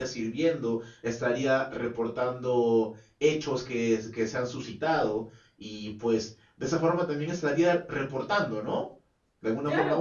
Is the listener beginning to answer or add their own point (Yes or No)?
Yes